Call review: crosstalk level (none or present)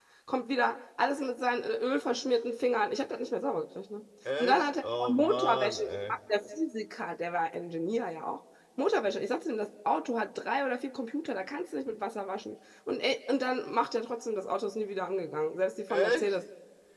present